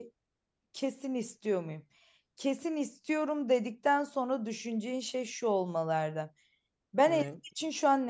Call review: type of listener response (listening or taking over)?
listening